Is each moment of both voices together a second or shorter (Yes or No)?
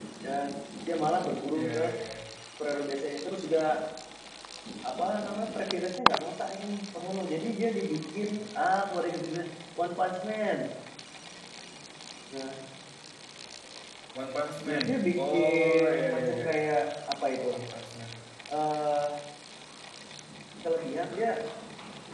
No